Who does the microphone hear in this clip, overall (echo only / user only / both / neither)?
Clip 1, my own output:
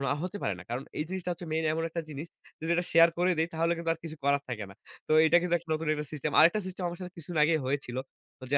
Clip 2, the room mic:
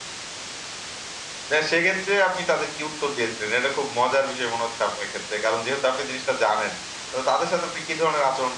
user only